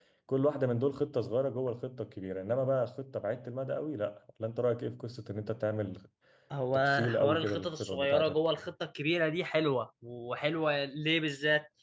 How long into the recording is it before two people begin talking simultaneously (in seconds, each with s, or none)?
6.7 s